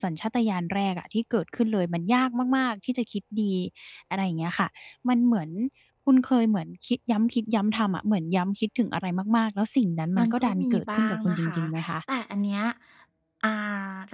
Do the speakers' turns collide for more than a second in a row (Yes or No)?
Yes